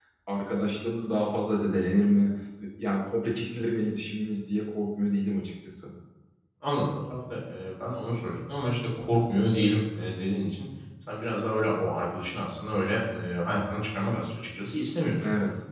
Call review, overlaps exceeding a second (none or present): none